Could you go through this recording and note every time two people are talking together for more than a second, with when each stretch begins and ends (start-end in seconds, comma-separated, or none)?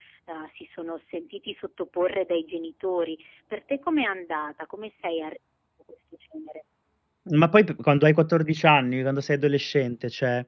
none